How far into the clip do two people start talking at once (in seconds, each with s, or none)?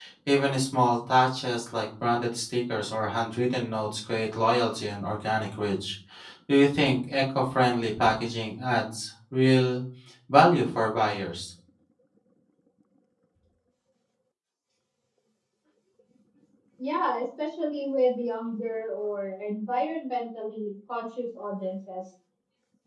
none